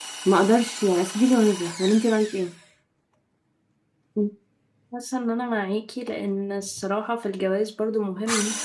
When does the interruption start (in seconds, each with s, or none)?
none